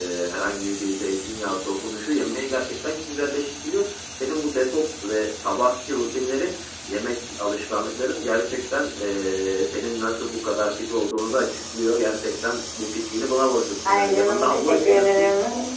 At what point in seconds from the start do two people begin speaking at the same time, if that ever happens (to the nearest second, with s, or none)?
14 s